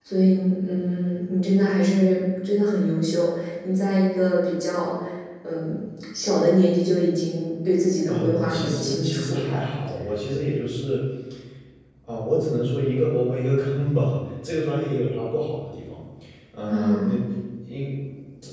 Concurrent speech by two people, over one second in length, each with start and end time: 8.1-9.5

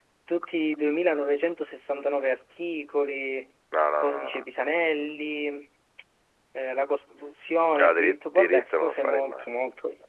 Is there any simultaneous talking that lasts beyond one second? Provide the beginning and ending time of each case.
7.8-9.3

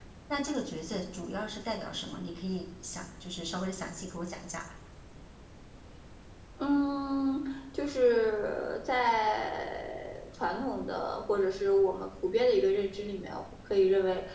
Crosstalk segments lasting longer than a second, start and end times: none

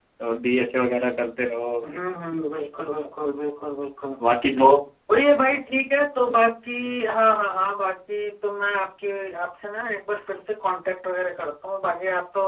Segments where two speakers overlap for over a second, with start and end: none

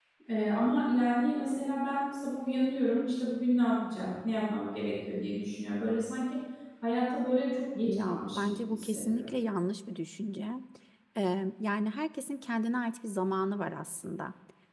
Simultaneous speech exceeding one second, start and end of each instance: 7.8-9.3

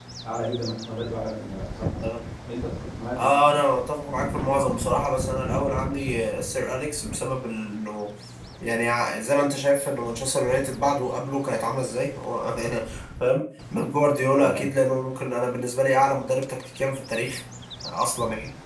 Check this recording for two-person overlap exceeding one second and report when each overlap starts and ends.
none

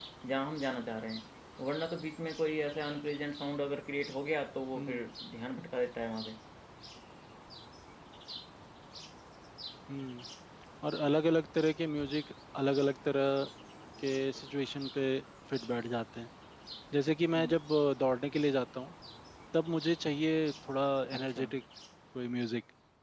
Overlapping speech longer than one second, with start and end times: none

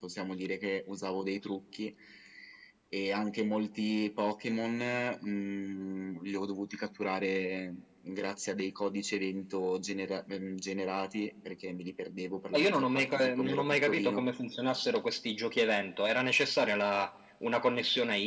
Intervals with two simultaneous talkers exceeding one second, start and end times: 12.5-14.2

